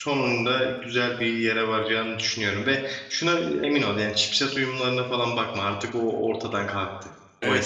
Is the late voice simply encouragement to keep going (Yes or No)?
No